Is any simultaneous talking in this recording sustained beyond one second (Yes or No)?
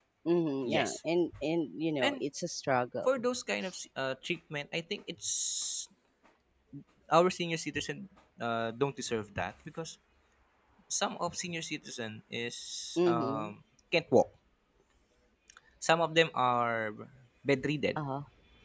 No